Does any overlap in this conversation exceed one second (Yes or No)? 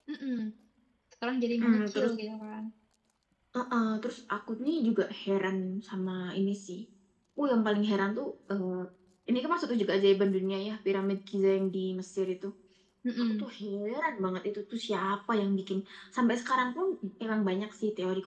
No